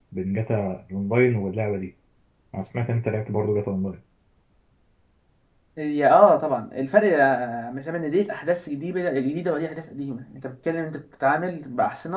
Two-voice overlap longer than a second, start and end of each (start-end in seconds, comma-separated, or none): none